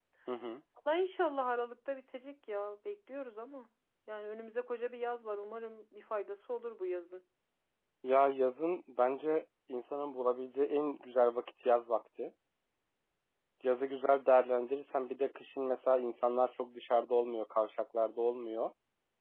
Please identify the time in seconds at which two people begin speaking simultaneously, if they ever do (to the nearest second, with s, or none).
none